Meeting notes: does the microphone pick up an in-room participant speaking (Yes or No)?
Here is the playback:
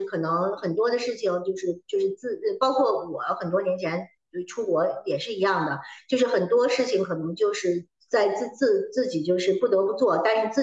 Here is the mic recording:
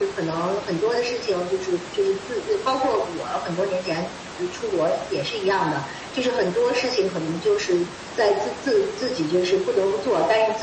No